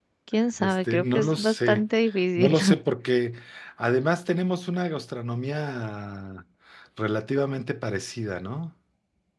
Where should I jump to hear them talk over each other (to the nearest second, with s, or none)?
1 s